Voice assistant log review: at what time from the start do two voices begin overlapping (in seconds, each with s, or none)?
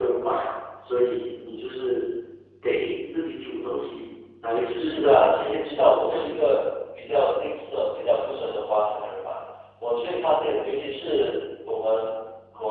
4.8 s